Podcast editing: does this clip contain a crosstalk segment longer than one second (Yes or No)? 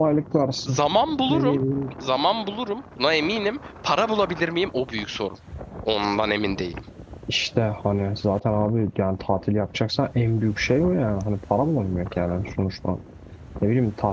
No